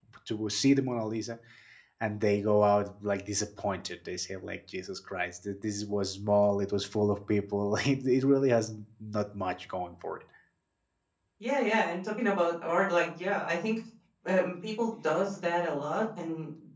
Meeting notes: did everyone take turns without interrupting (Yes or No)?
Yes